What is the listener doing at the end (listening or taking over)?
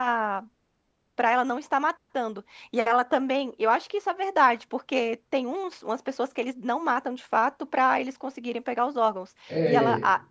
listening